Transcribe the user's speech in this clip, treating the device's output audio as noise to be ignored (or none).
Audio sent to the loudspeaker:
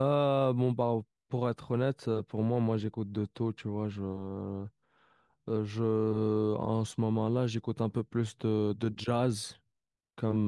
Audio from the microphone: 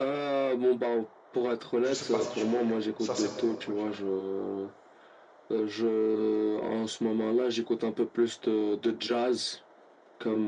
Je sais pas si tu connais. Ça, c'est mon groupe préféré.